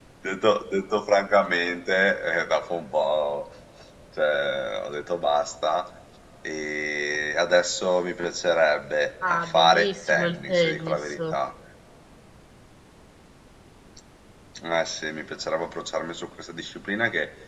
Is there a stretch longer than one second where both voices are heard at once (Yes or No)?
Yes